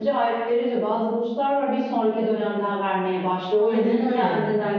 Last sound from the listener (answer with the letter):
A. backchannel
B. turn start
A